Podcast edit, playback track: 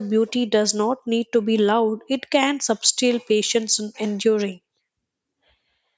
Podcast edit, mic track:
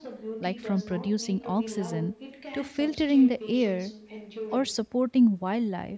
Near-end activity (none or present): present